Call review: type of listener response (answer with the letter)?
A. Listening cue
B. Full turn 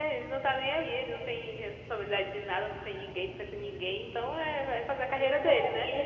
B